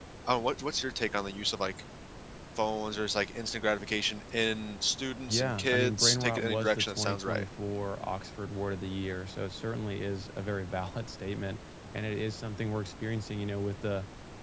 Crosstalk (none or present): present